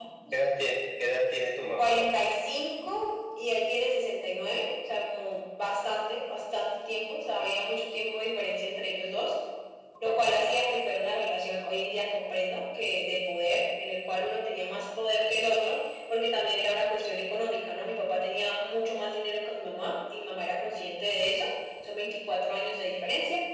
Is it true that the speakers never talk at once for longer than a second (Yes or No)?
Yes